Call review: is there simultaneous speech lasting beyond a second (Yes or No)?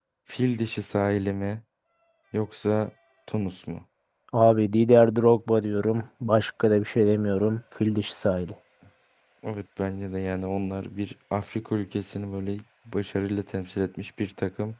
No